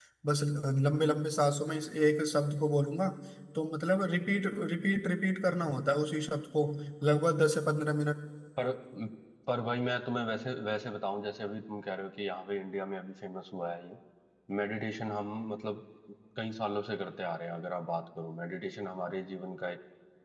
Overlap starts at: none

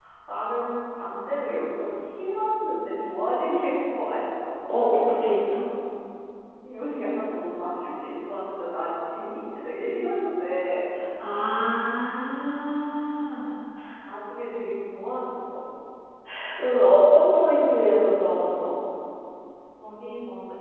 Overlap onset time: none

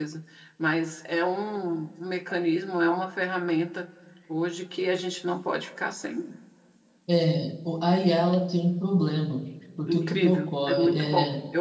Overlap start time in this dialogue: 9.9 s

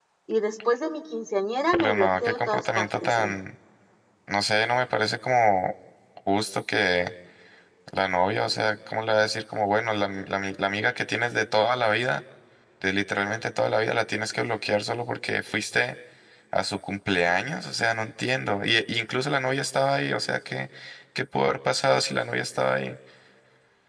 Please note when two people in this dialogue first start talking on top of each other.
1.7 s

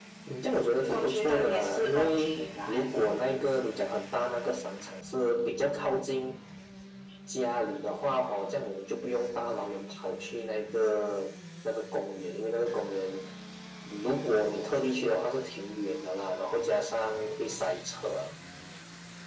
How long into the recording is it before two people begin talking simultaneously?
0.9 s

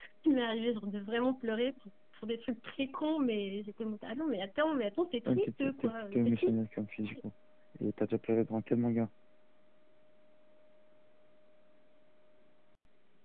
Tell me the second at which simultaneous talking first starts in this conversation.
5.3 s

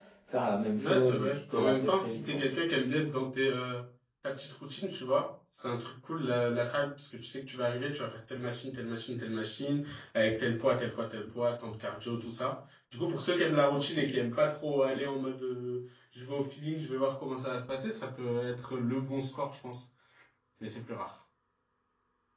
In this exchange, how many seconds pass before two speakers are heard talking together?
0.8 s

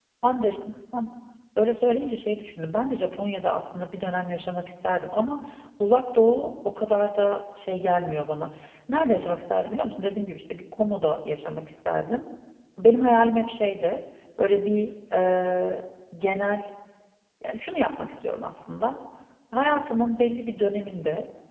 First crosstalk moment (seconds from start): none

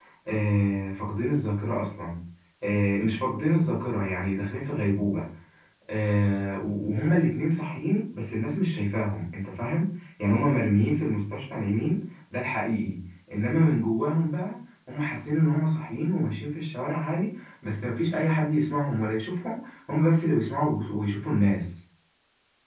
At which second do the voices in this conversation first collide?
none

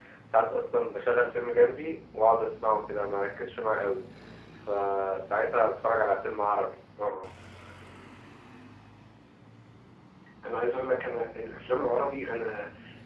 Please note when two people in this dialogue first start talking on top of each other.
none

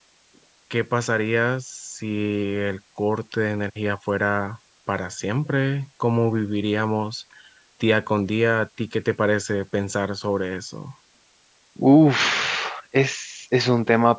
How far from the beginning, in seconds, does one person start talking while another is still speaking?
none

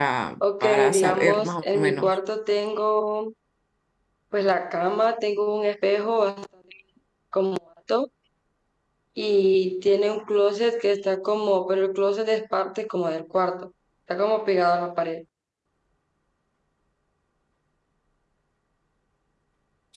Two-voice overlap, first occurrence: 0.6 s

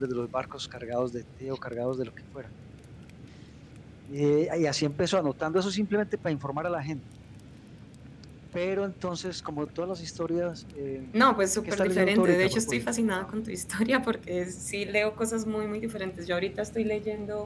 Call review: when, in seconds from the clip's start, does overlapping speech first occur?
11.1 s

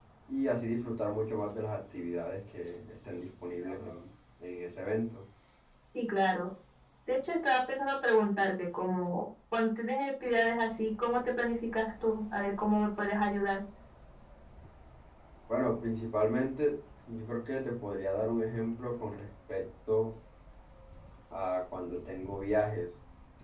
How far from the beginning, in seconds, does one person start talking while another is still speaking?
none

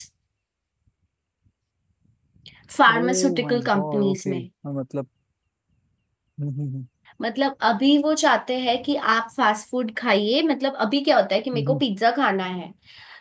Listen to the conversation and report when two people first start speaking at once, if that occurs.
2.9 s

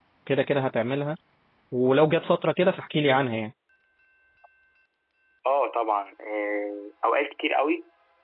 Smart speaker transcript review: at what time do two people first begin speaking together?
none

